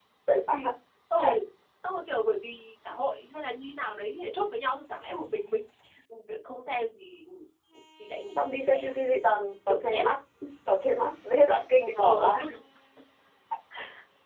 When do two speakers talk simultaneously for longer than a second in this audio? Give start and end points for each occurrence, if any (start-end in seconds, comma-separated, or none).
none